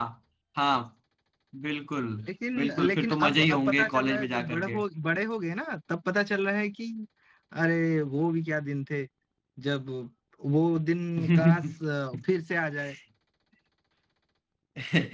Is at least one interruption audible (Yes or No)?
Yes